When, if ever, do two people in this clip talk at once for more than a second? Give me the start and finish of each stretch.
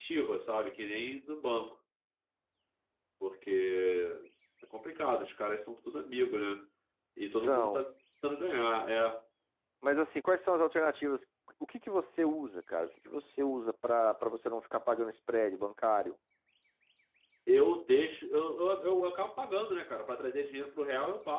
none

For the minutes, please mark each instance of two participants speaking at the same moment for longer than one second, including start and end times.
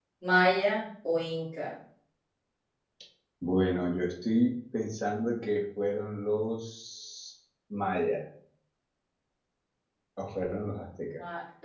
none

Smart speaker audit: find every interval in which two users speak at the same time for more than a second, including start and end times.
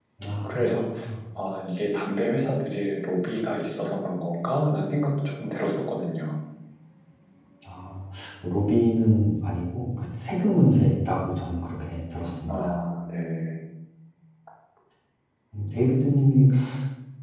none

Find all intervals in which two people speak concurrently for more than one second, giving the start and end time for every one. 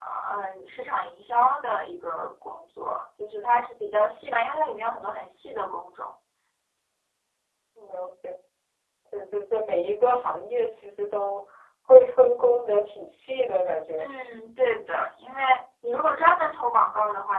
none

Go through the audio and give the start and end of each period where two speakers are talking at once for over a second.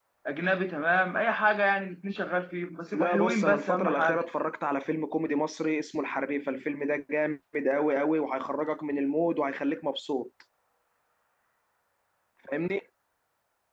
2.9-4.2

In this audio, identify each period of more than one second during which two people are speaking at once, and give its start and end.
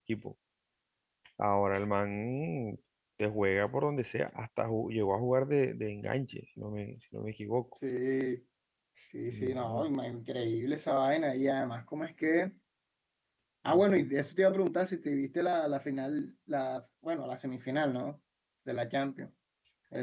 none

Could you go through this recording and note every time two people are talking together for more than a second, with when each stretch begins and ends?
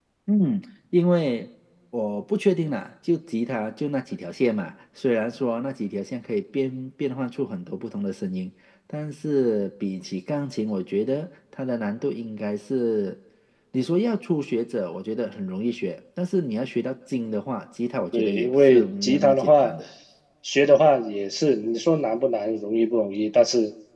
18.1-19.7

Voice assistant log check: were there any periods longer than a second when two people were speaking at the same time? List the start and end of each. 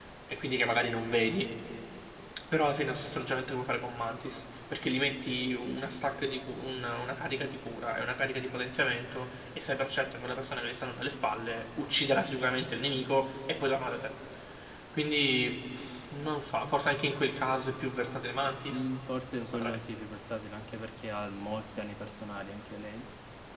none

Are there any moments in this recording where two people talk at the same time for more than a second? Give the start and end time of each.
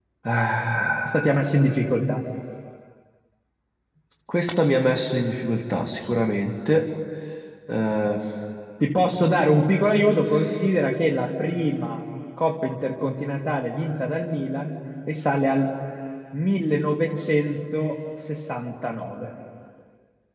none

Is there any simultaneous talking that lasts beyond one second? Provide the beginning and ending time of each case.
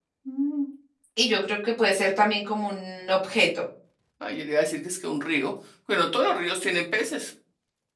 none

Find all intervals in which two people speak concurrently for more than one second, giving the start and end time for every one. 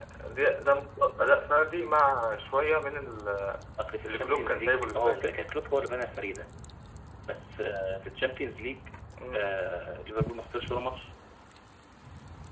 4.0-5.3

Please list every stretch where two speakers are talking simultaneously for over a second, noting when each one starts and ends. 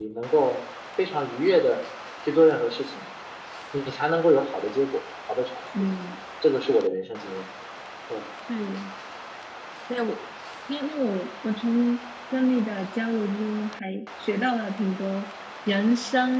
none

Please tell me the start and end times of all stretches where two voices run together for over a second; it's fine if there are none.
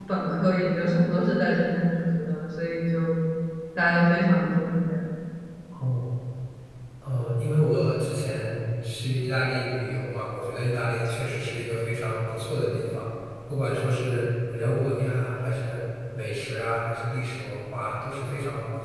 none

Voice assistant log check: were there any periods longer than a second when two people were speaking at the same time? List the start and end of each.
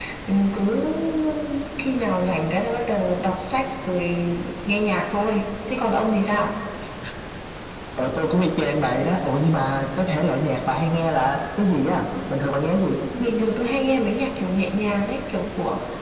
none

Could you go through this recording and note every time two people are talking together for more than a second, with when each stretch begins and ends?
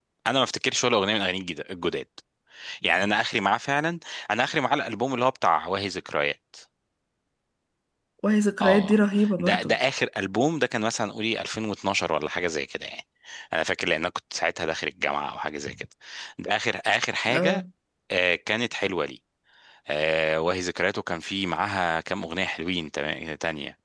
none

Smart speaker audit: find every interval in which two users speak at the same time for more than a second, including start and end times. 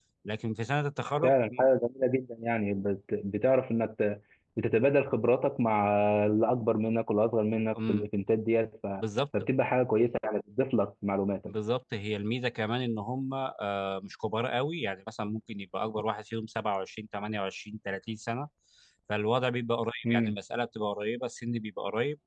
none

